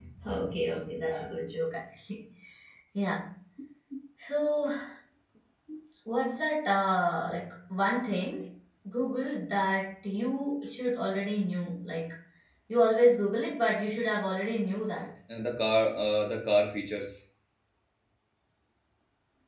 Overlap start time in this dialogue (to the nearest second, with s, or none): none